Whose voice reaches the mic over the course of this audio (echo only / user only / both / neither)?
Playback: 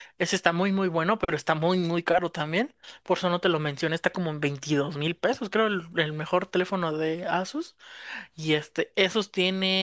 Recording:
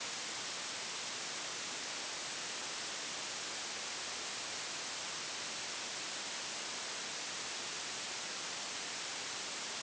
neither